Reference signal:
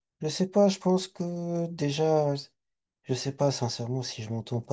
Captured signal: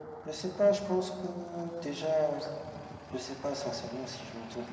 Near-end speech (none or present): none